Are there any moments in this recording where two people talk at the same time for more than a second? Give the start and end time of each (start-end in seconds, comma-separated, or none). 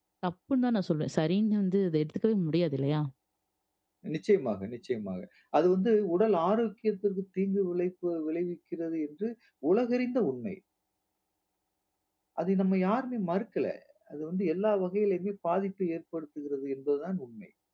none